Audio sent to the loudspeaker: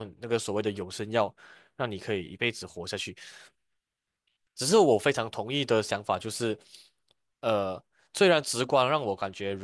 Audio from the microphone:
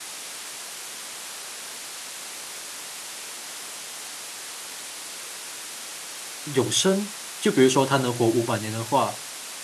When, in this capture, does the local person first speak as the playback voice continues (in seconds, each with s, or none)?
6.4 s